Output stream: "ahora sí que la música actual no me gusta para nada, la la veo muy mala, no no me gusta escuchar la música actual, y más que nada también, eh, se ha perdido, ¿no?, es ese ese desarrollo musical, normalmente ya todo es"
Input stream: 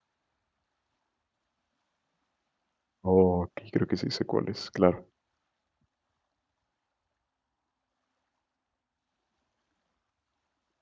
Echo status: none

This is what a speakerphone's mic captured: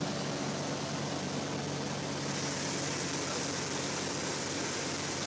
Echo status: none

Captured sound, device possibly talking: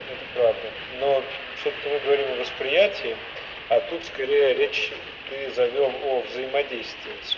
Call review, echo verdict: present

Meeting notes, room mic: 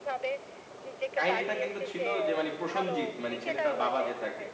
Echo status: present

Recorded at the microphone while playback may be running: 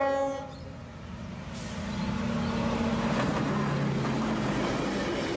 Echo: none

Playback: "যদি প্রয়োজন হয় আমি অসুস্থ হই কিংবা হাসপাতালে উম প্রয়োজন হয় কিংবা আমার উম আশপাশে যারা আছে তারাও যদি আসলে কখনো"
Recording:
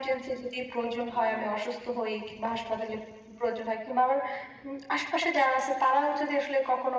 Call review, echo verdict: present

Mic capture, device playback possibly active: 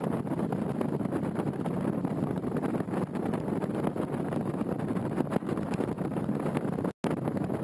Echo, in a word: none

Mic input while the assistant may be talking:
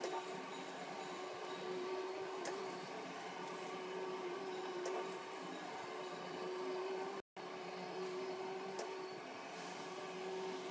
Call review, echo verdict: none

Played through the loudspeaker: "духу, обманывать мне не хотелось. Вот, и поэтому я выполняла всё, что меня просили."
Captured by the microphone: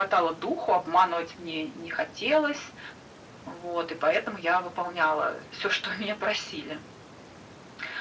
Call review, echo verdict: present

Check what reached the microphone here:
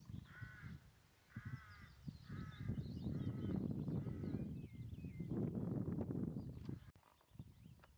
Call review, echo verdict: none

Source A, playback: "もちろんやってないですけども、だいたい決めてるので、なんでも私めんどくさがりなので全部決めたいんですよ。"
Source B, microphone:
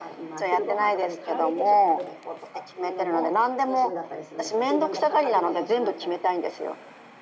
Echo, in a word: present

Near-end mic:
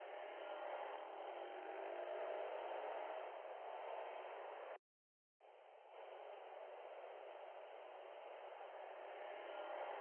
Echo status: none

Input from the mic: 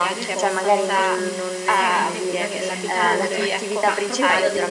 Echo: present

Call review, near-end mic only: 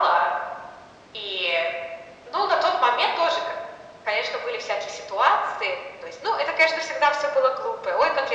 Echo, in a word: present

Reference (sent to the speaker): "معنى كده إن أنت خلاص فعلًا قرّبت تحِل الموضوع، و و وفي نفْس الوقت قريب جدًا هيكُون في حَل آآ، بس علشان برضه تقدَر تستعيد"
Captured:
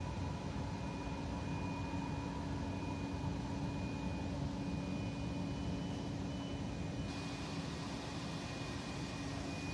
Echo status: none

